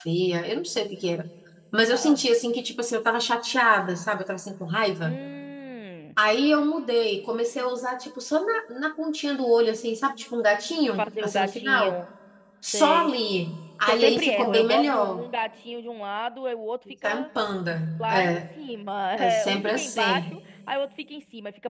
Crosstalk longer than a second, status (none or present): present